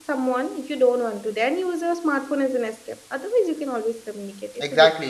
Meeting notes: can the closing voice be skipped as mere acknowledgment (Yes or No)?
No